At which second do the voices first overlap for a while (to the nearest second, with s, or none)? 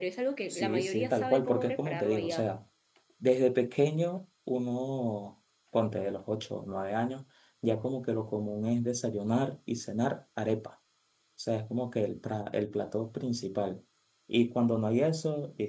1 s